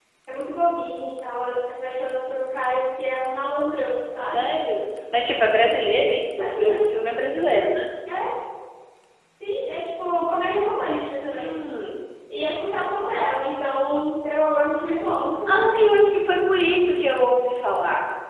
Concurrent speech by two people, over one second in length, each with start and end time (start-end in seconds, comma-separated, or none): none